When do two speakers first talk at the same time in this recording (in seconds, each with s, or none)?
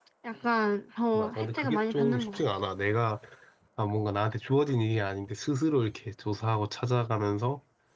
1.1 s